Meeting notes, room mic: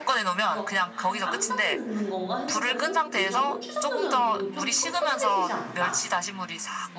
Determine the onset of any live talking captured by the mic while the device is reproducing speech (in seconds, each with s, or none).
0.4 s